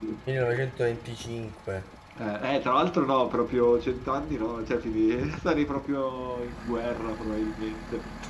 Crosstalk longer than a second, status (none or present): none